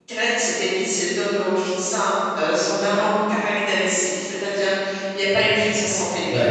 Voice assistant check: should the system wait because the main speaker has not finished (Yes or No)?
No